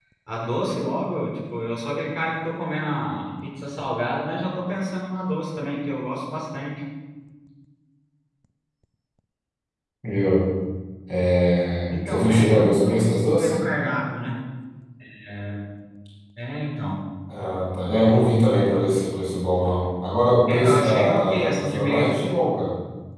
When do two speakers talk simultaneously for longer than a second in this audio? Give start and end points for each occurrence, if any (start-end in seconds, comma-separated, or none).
11.9-13.5, 20.5-22.2